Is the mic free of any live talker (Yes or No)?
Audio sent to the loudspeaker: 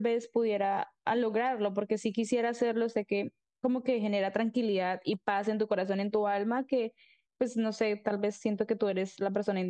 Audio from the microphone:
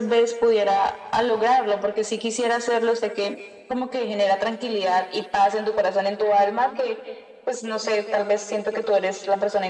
Yes